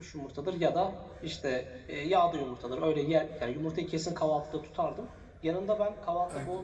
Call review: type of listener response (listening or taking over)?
listening